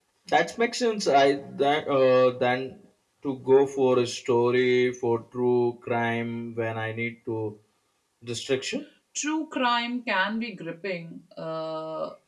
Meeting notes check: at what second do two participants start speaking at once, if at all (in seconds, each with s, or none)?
none